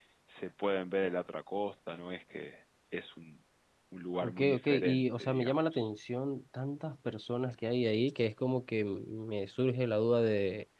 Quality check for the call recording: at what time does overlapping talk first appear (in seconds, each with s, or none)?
4.2 s